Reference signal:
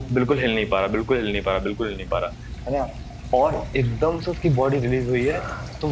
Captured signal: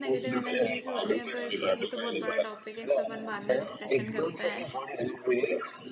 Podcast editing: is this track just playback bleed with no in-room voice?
No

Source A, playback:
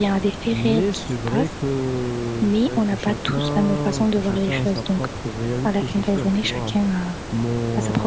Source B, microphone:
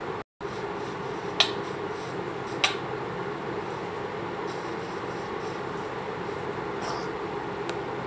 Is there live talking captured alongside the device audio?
No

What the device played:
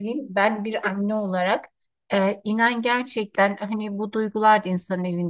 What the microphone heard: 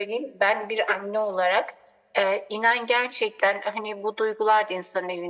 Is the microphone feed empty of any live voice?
Yes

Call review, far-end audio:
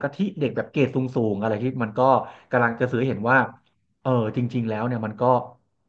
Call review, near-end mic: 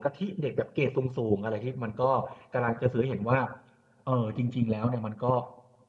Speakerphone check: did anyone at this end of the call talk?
No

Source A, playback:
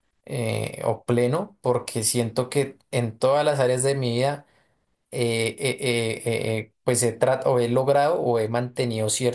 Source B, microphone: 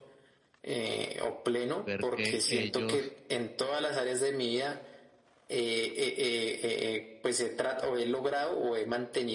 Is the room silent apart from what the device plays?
No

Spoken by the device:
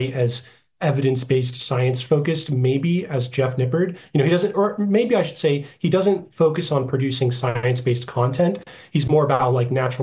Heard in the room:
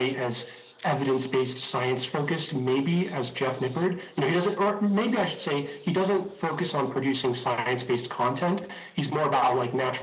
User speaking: No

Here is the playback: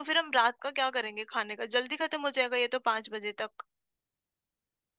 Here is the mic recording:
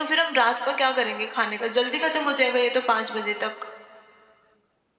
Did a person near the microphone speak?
No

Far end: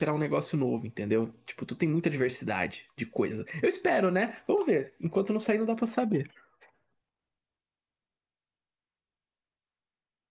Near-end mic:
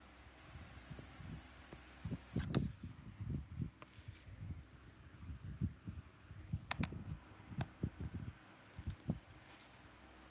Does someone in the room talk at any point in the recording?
No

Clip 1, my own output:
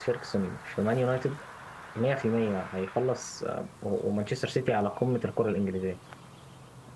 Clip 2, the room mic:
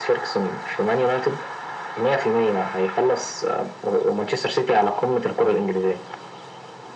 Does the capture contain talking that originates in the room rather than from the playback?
No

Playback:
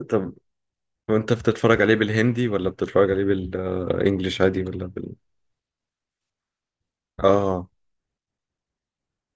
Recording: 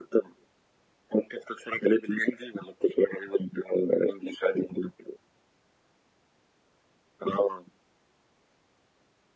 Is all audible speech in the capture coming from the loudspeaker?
Yes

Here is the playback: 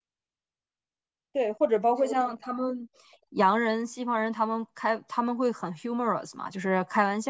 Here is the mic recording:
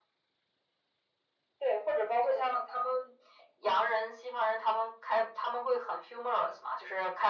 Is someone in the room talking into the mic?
No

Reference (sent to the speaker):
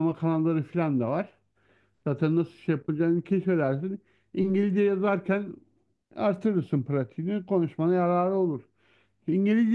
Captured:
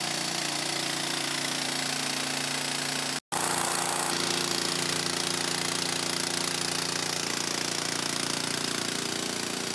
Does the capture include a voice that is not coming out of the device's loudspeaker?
No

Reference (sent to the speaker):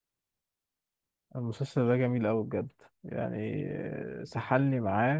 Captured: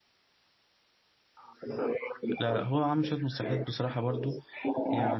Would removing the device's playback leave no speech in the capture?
No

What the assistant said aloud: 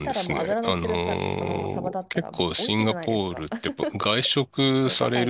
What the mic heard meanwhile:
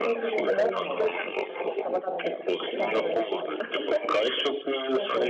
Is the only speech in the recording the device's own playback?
No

